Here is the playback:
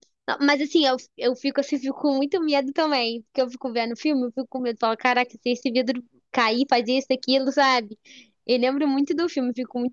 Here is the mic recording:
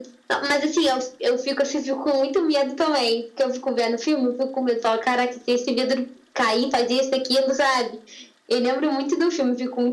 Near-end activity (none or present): none